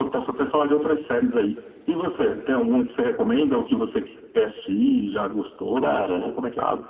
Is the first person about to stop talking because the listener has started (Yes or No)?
Yes